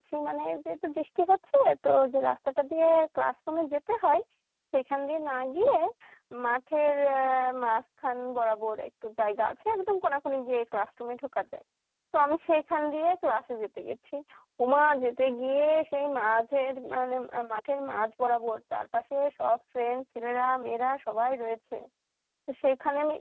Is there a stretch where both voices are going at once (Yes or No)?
No